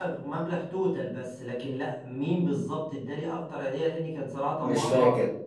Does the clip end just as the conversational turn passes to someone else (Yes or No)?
No